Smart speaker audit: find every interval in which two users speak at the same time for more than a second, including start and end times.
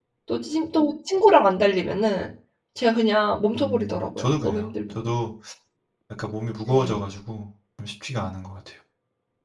3.5-5.0

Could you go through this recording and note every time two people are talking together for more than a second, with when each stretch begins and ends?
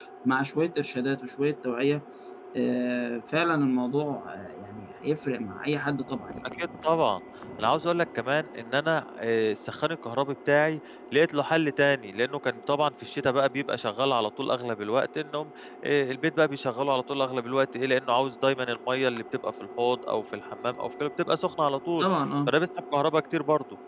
none

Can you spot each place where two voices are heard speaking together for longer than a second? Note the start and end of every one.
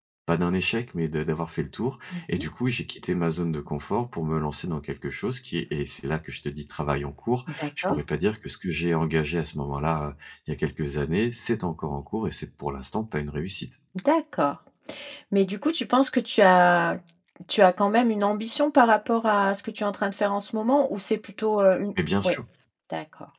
none

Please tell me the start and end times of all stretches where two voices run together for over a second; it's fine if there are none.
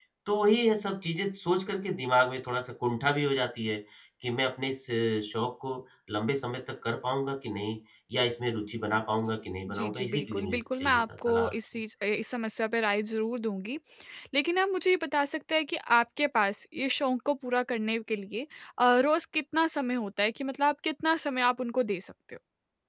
9.8-11.5

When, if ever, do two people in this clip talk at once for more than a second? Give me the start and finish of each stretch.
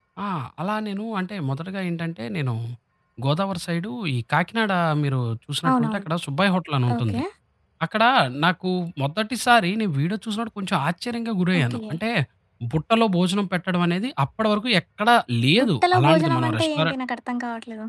15.6-16.9

